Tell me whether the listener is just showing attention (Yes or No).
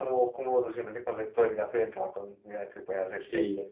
No